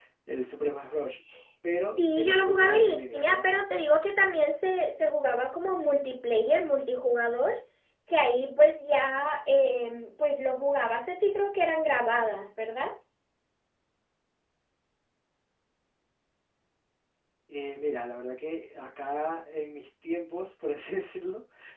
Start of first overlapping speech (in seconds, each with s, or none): 2.0 s